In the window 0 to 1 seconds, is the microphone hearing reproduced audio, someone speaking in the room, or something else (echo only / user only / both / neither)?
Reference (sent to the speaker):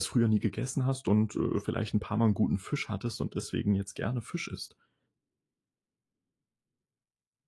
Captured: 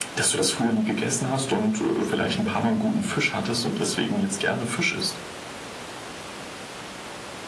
echo only